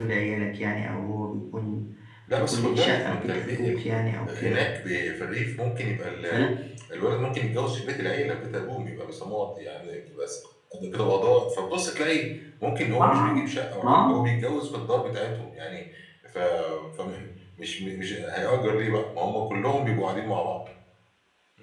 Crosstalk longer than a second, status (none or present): present